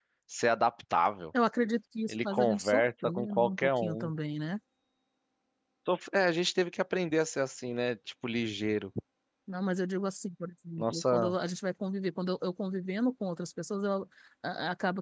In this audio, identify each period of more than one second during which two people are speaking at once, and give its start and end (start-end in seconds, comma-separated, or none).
2.1-4.1